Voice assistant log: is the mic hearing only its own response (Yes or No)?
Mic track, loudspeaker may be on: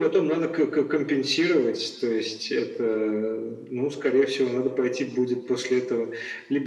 Yes